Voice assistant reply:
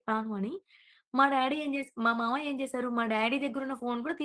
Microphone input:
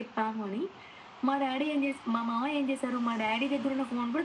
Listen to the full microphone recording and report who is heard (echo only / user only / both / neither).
echo only